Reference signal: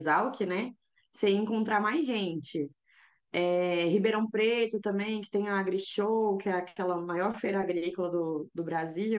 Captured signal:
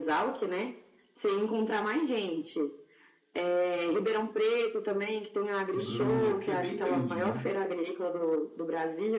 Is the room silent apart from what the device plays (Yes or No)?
No